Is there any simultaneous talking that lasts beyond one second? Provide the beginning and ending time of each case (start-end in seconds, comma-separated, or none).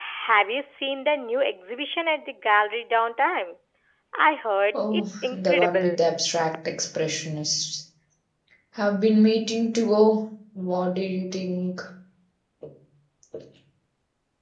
4.7-6.0